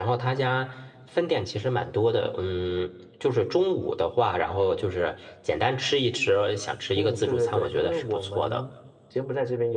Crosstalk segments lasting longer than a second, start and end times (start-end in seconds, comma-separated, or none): 7.0-8.6